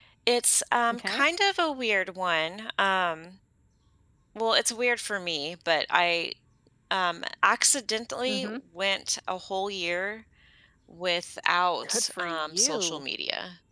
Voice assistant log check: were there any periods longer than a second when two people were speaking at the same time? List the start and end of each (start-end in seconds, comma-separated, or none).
11.8-13.0